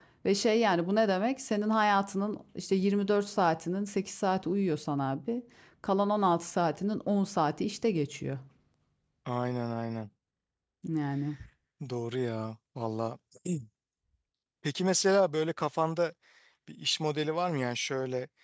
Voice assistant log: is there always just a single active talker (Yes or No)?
Yes